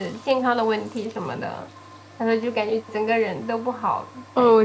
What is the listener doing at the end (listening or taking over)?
taking over